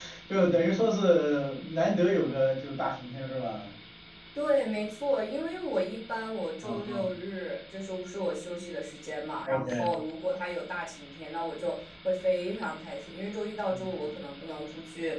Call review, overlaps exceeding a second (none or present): none